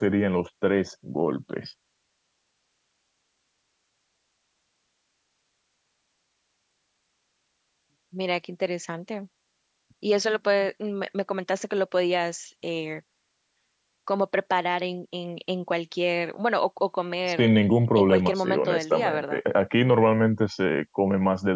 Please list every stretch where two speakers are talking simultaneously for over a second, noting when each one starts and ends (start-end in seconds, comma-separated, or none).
18.0-19.4